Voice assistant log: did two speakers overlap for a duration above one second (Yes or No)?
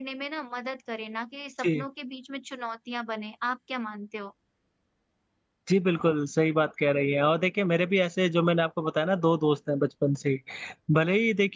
No